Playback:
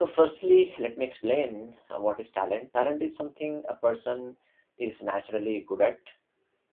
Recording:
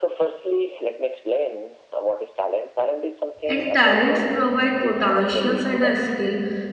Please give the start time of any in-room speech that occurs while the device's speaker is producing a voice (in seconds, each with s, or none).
3.4 s